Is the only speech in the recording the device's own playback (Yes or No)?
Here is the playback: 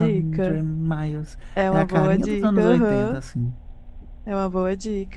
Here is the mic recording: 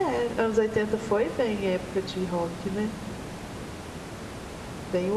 No